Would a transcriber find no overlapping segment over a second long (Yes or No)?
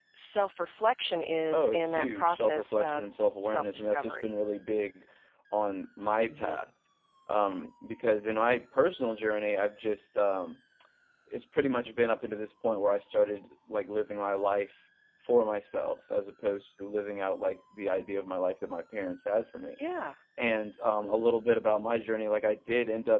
No